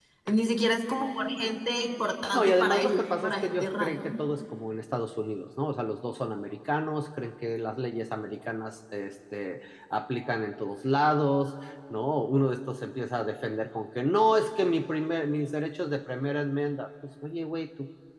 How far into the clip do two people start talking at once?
2.3 s

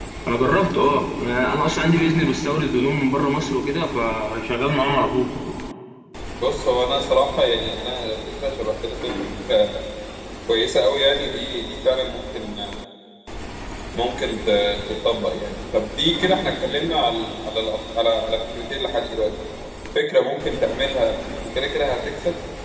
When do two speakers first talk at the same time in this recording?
none

